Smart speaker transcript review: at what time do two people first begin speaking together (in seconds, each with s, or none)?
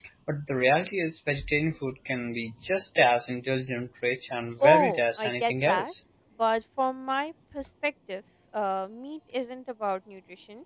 4.6 s